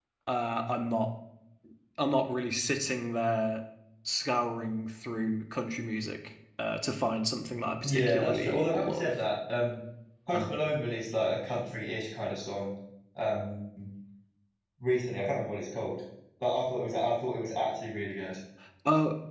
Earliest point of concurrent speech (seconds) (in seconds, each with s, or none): 7.8 s